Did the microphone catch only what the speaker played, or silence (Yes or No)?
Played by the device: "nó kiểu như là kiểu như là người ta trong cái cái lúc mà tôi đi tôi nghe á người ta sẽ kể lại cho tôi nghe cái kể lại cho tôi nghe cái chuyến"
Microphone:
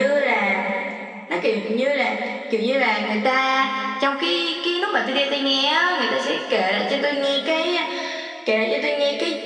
Yes